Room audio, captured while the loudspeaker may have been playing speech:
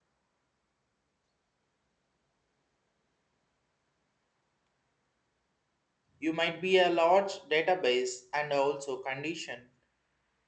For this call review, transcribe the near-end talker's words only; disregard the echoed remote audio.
you might be a large database and also condition

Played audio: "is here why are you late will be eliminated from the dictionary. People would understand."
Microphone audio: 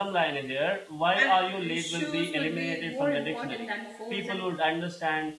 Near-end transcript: and uh, shoes would be more important than phones and

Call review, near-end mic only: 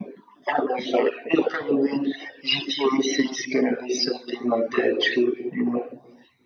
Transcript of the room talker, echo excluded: none

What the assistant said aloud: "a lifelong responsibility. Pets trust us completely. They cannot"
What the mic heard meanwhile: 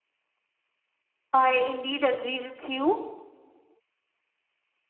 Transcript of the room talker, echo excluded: I indeed agree with you.

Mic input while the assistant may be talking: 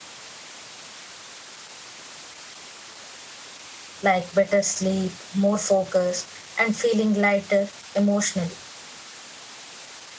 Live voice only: like better sleep, more focus, and feeling lighter emotionally.

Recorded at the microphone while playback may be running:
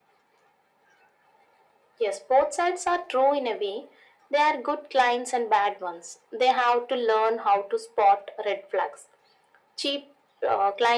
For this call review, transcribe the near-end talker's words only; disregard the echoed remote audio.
none

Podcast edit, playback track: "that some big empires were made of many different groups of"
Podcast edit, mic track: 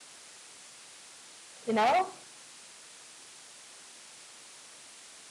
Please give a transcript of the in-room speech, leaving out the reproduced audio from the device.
You know?

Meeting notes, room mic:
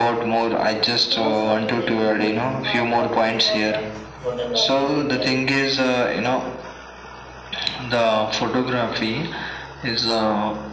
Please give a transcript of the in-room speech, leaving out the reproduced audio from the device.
most of the things mo- are talking about the photography people

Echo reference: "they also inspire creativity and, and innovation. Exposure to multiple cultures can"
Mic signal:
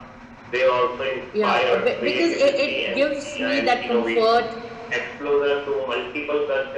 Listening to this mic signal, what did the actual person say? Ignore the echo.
you know a bit- because it, it gives me that comfort

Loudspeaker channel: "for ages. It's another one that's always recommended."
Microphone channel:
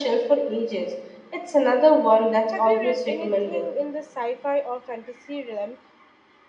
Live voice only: Have you read anything in the sci-fi or fantasy realm

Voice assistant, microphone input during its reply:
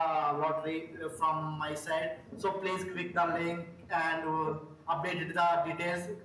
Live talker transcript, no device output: none

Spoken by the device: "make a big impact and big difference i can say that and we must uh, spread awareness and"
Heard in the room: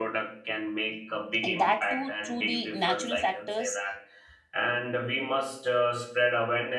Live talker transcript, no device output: and that too through the natural factors

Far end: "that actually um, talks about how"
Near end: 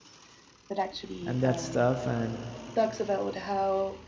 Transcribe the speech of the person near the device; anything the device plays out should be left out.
and that stuff and

